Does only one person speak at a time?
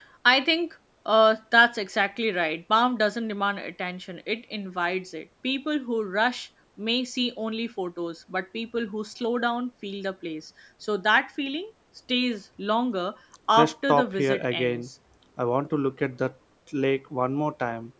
No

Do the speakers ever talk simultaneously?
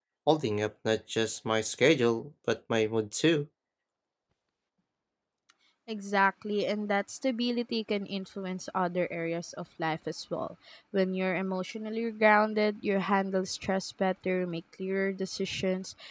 No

